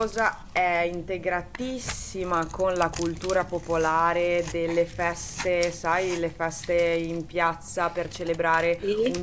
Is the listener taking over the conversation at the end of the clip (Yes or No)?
No